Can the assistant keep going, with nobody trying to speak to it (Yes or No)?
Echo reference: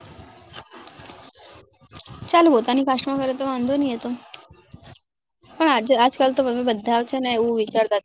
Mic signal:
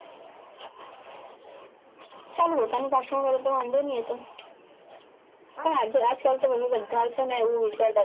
Yes